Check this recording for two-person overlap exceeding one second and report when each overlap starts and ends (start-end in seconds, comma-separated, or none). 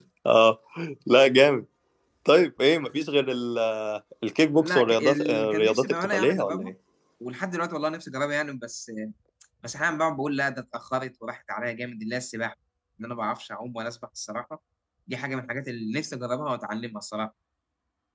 4.6-6.7